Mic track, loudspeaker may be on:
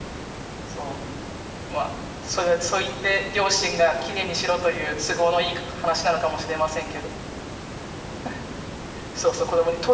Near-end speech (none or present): none